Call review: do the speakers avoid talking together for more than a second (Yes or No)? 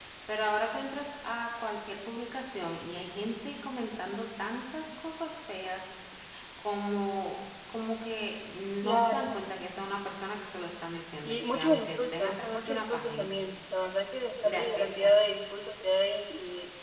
No